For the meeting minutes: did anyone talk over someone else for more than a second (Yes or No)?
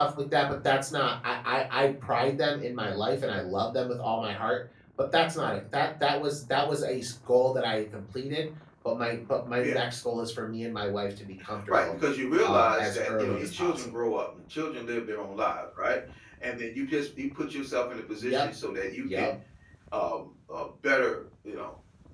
Yes